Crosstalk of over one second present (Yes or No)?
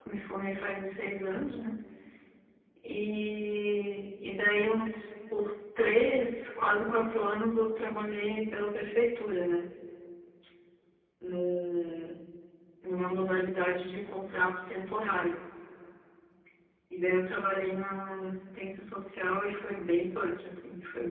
No